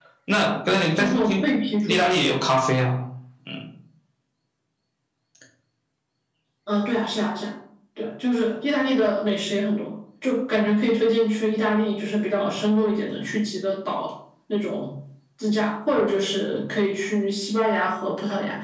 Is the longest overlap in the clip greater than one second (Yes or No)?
No